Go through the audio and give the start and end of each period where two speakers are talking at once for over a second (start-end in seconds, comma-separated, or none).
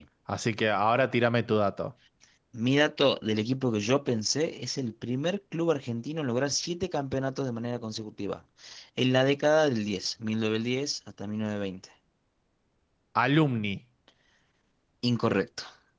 none